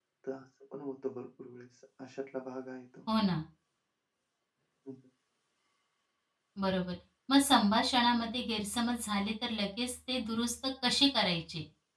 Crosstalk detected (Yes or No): No